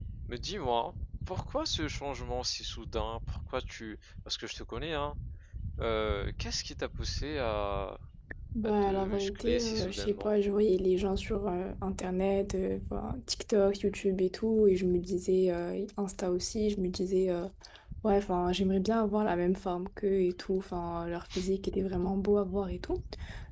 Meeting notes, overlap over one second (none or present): present